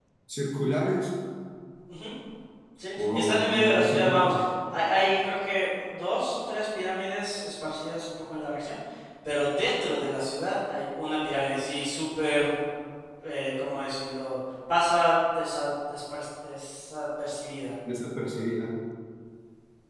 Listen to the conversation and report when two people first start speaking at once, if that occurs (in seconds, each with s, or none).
3.0 s